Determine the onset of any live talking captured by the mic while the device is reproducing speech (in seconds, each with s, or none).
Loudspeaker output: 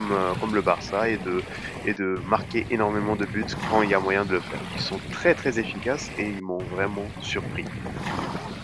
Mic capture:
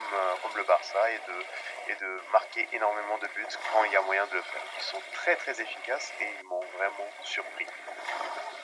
none